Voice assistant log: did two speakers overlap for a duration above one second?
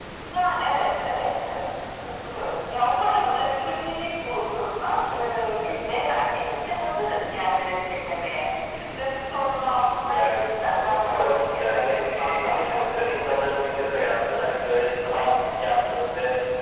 Yes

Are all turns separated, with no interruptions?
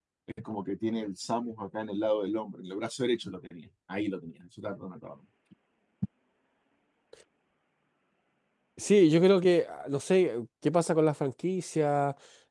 Yes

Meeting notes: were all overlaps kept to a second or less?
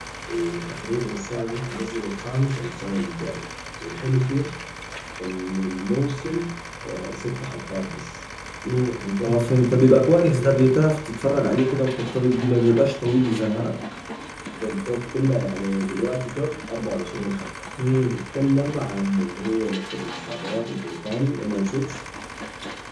Yes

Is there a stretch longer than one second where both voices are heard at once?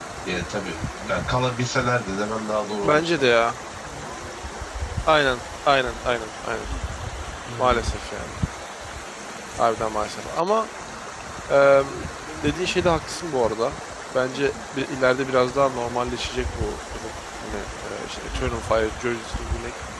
No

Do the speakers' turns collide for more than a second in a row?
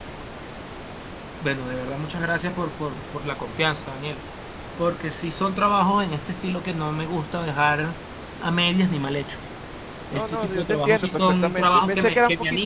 Yes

